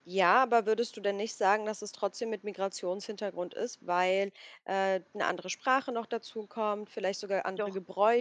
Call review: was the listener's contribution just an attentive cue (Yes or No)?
Yes